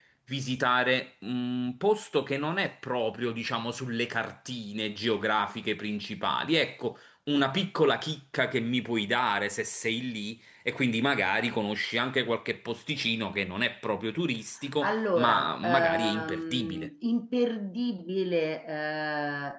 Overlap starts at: 14.8 s

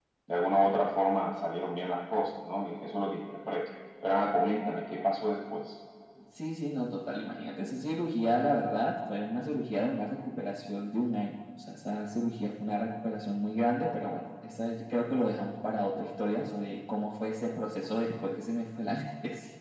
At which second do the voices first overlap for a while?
none

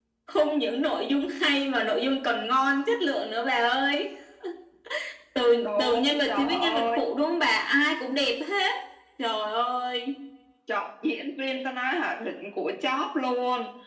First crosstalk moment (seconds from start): 5.6 s

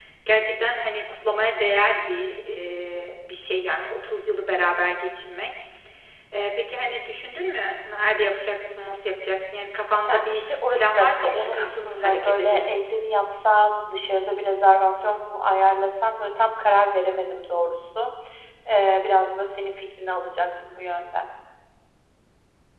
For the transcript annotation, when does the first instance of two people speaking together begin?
10.1 s

